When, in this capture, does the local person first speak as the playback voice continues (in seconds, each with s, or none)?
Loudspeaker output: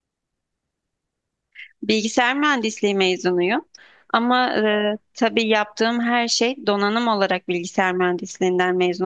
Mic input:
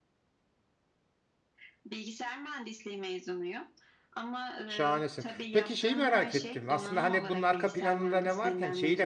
4.7 s